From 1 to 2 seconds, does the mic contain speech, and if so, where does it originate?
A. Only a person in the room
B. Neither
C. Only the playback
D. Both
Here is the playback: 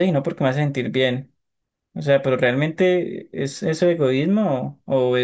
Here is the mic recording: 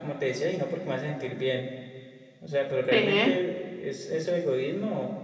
C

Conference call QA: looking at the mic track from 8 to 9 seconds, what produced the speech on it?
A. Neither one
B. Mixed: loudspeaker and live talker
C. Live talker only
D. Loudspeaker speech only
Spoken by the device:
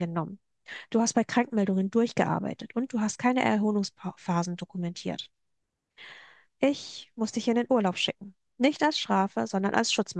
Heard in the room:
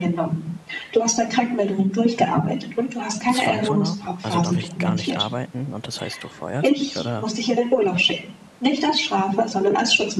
D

